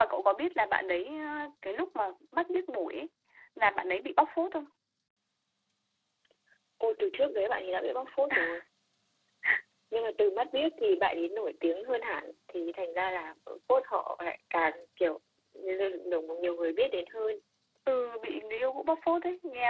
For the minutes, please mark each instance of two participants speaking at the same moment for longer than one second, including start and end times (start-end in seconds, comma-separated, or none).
none